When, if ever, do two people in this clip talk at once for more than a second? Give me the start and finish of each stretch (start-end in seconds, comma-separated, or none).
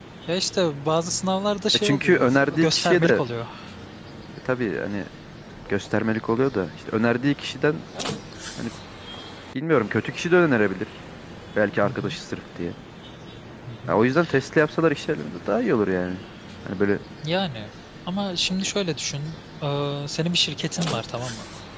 1.7-3.2